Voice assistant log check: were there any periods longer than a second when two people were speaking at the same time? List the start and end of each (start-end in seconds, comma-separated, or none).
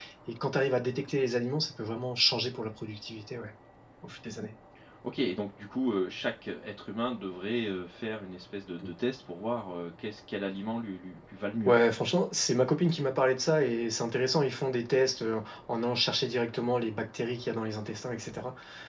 none